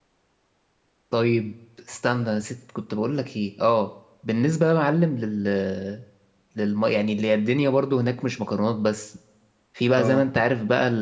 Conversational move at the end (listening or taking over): listening